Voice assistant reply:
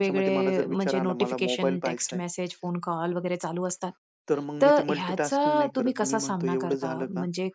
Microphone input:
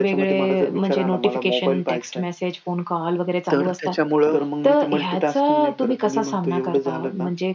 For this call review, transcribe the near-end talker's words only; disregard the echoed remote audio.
तर त्याच्यामुळं

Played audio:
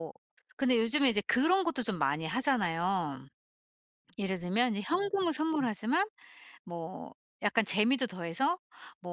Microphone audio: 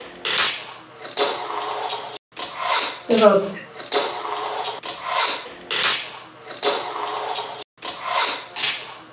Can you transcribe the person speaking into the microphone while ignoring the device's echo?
그래서

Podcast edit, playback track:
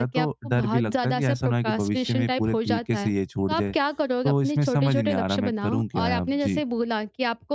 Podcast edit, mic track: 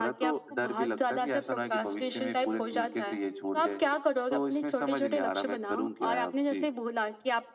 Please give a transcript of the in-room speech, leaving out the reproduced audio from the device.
none

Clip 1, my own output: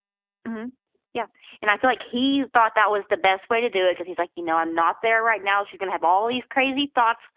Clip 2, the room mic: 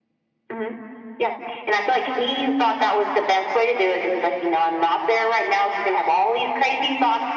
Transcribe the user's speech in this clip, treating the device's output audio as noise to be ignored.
none

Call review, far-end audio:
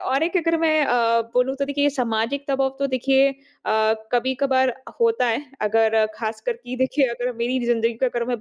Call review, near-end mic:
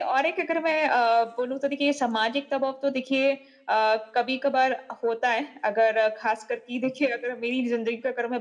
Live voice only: none

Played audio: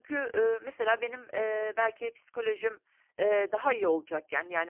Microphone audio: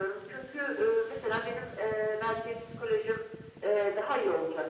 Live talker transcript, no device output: none

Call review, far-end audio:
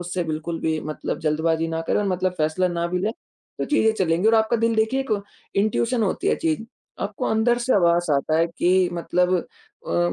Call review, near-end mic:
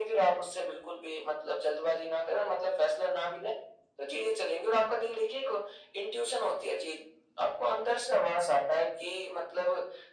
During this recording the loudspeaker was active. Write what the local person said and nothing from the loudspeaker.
none

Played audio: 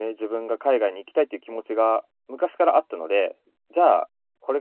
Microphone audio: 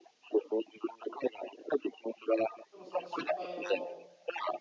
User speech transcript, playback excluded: でもその失敗を

